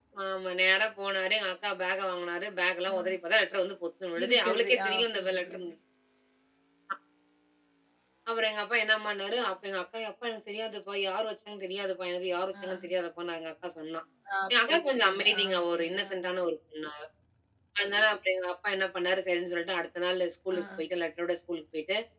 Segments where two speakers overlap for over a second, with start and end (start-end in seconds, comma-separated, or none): 4.2-5.7, 14.5-16.1